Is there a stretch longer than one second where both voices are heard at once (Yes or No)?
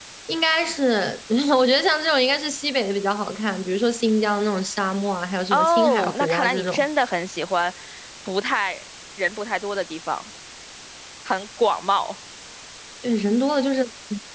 Yes